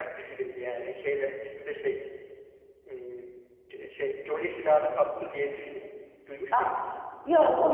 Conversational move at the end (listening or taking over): taking over